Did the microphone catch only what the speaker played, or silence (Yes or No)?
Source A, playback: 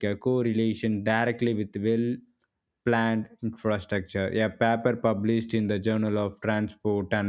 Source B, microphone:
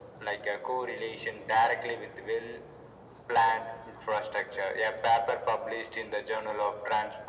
Yes